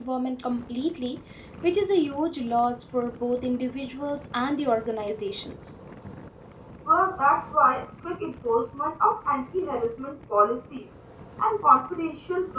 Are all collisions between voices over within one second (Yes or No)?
Yes